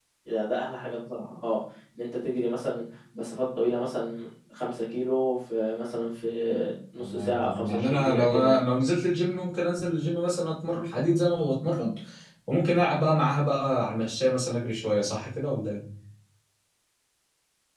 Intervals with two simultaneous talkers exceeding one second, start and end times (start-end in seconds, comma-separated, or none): 7.0-8.6